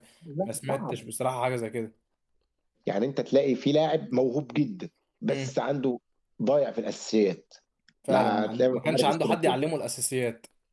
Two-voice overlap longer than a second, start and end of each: 8.1-9.6

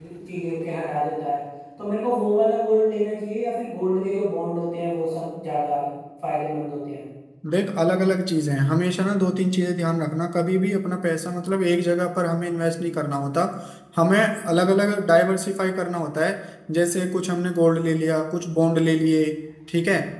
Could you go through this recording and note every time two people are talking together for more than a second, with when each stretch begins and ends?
none

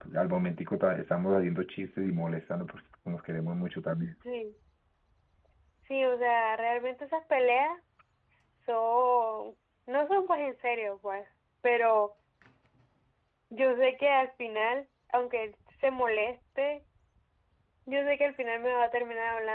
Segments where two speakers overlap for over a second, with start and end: none

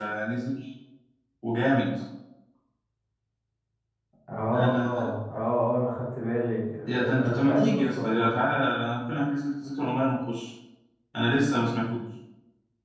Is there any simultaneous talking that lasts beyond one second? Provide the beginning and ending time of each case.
7.1-8.3

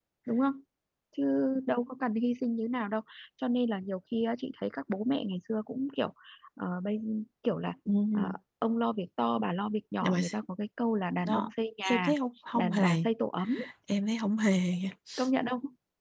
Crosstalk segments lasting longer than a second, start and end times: none

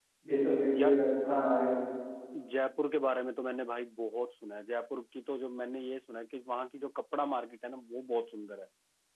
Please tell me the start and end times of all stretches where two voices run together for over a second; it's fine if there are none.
none

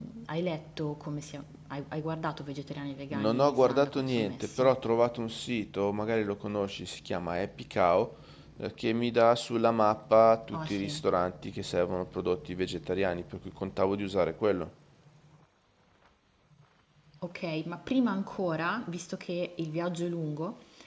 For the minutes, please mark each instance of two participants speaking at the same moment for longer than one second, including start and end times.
3.2-4.7

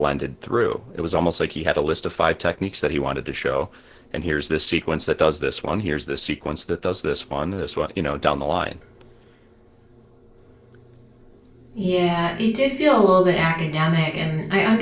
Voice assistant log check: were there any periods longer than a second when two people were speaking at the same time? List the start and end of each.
none

